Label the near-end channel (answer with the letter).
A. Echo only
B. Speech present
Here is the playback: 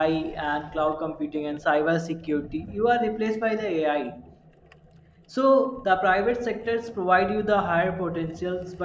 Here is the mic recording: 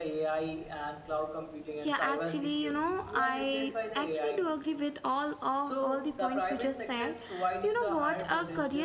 B